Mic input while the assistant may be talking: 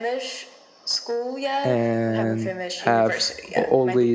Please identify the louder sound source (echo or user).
user